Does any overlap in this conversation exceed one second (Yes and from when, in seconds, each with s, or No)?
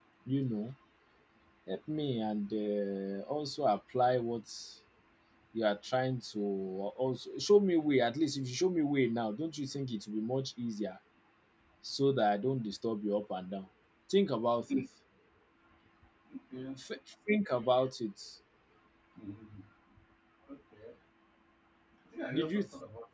No